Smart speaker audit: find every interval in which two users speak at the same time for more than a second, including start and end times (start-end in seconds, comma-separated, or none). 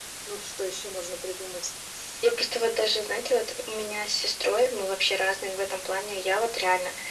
none